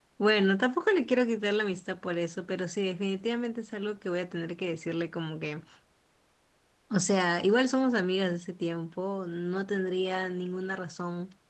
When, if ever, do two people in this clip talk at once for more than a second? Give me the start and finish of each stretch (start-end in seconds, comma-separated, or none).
none